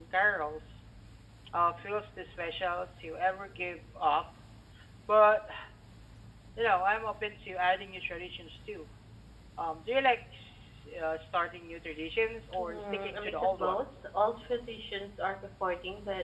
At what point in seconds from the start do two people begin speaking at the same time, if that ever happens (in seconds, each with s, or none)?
12.5 s